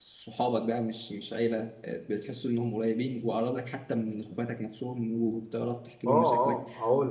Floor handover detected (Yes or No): Yes